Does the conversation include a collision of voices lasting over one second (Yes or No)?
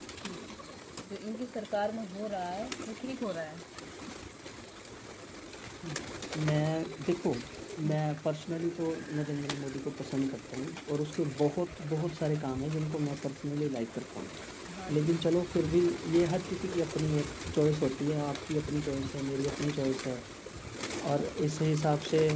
No